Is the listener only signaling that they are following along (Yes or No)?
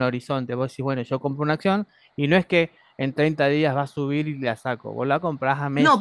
No